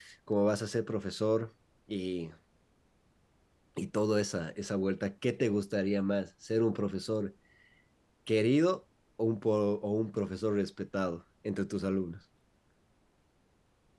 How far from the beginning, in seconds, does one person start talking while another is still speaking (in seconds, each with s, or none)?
none